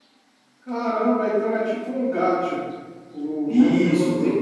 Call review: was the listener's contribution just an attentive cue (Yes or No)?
No